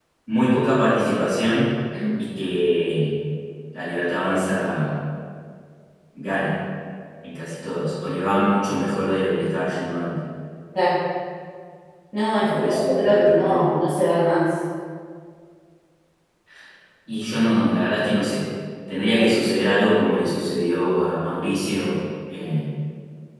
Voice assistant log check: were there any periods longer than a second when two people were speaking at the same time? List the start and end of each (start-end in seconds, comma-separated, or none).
12.4-13.7